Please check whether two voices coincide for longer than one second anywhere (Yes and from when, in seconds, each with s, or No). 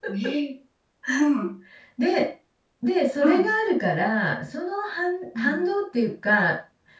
No